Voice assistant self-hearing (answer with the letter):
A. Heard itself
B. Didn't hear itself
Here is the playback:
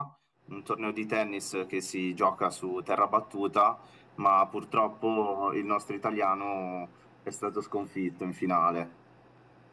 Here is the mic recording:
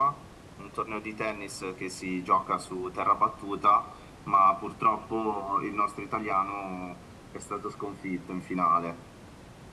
A